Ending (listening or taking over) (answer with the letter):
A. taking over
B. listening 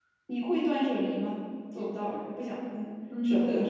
A